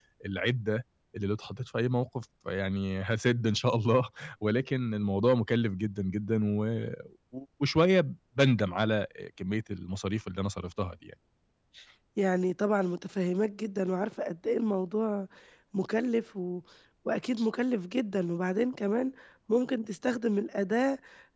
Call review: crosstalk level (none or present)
none